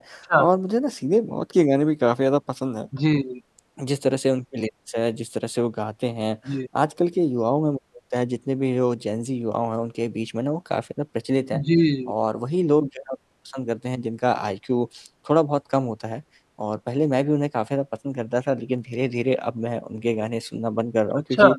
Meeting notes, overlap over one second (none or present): none